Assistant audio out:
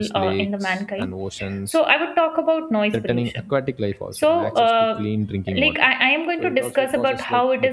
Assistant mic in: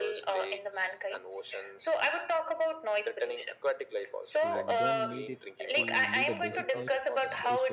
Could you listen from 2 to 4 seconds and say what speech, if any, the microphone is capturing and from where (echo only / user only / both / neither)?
echo only